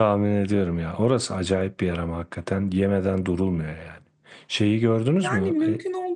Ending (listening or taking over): taking over